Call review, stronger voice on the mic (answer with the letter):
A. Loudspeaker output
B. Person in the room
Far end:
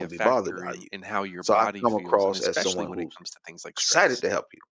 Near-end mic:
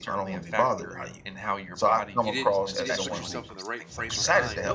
A